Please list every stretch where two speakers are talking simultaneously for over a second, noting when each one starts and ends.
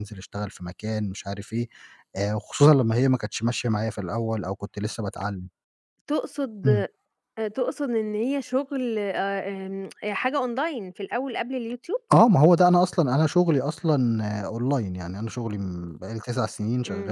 none

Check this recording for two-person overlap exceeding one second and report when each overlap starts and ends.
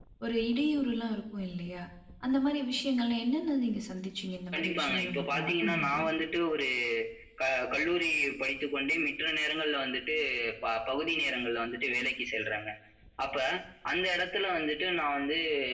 4.5-6.0

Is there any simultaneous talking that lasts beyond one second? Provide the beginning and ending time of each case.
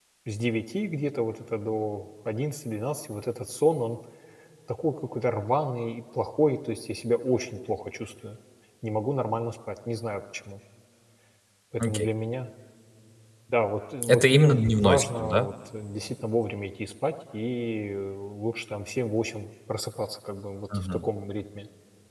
14.1-15.5

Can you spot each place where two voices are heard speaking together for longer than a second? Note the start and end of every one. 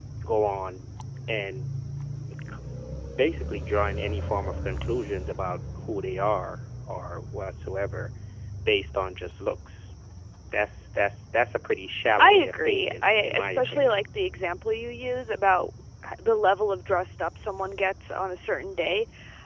12.2-14.0

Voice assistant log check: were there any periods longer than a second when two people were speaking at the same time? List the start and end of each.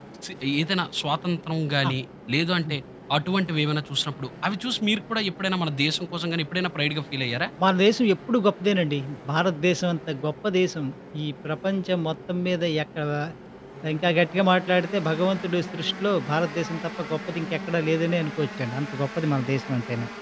none

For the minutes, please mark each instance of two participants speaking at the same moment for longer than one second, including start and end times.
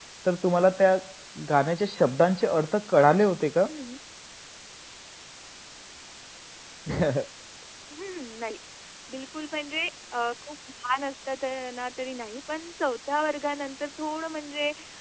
none

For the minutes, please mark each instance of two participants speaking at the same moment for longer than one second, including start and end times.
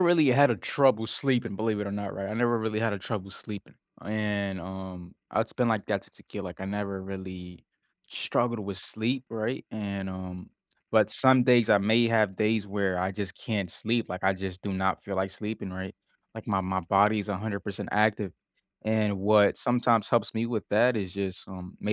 none

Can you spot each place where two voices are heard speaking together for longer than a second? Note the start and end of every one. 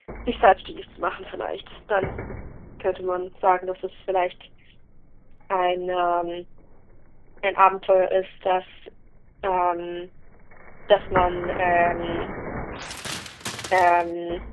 none

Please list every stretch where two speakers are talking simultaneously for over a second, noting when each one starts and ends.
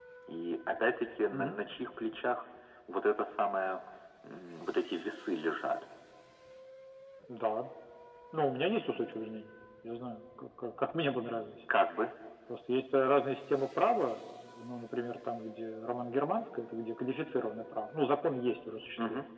none

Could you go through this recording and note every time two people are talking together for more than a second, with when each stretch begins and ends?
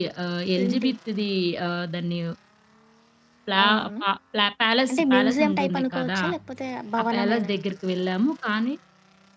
4.9-6.2

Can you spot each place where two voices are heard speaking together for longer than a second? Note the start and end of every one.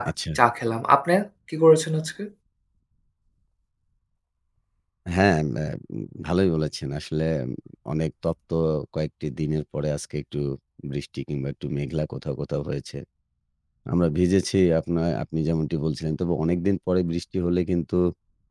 none

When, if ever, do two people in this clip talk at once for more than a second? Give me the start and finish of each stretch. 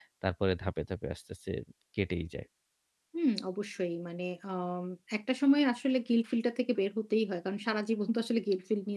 none

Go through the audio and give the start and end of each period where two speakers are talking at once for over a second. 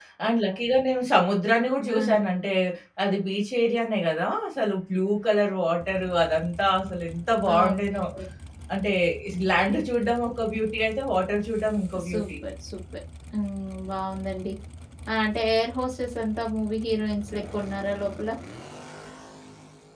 none

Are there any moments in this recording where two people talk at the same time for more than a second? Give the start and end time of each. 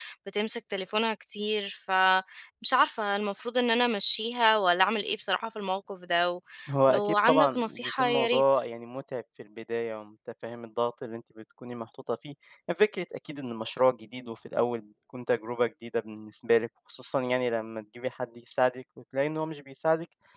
6.9-8.4

